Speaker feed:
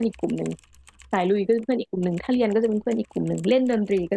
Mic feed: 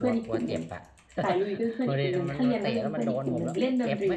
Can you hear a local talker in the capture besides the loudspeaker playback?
Yes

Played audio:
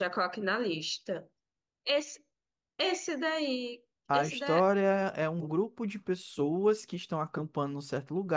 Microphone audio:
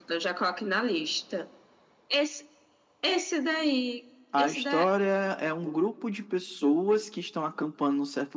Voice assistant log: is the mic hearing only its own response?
Yes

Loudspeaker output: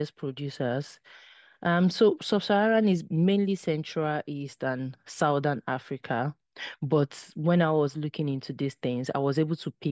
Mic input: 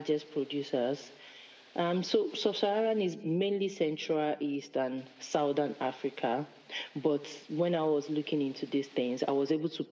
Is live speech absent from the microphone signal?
Yes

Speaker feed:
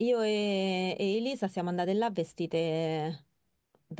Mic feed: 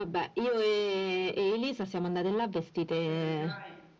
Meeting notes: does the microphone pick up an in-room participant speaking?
Yes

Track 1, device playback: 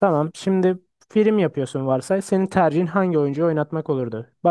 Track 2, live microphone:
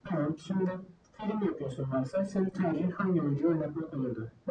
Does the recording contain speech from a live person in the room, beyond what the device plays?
No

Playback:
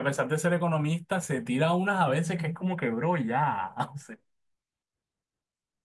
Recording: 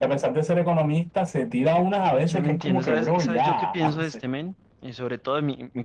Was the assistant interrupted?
Yes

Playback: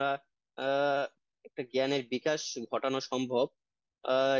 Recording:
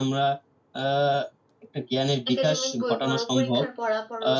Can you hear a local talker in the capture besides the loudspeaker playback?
Yes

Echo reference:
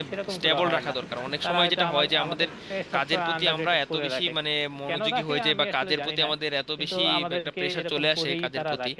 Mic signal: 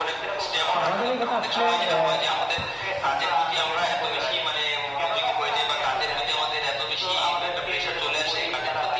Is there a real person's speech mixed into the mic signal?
Yes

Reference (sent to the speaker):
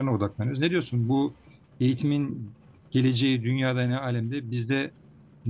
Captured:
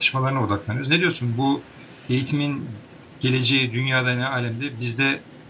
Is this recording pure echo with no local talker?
Yes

